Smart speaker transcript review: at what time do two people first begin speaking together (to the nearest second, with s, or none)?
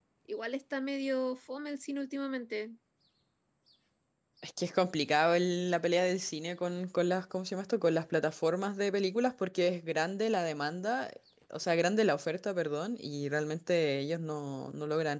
none